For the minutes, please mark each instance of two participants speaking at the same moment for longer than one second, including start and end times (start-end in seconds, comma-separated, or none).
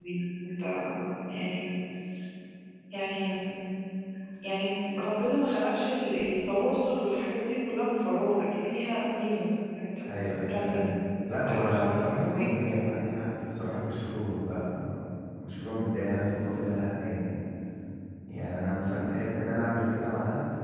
11.5-12.8